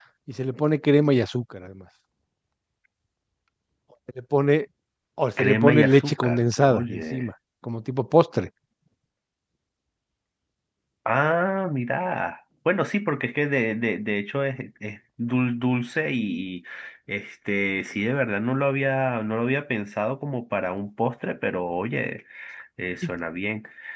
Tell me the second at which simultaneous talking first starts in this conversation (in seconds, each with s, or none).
5.4 s